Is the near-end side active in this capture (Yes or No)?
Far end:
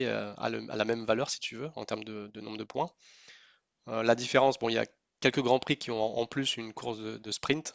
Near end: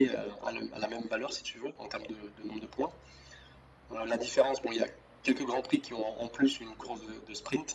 No